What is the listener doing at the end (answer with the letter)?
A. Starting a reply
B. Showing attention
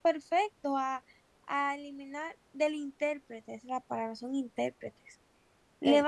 B